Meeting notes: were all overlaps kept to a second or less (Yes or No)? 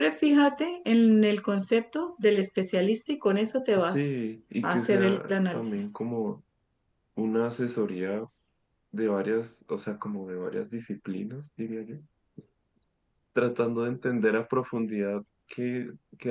No